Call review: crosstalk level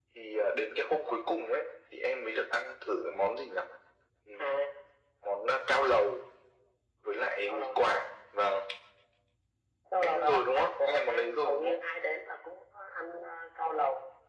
present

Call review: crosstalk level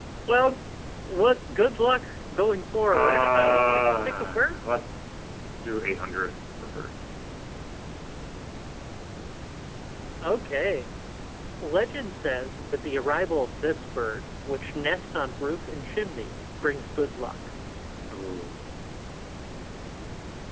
present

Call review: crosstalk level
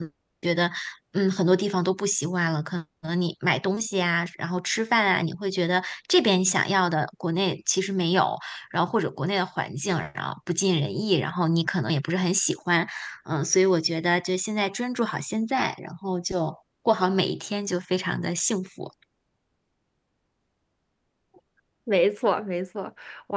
none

